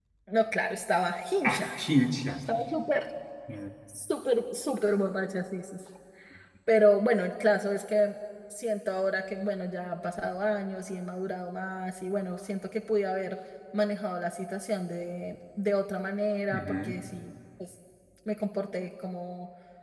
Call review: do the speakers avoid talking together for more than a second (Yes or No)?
Yes